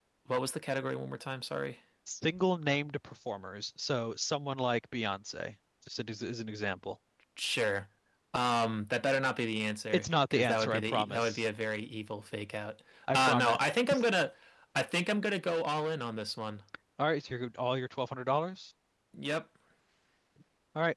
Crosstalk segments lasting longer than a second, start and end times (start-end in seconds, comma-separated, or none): 9.9-11.4